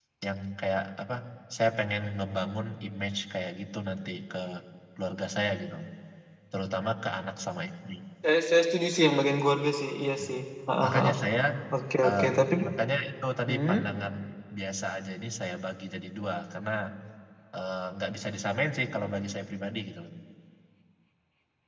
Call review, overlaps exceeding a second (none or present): none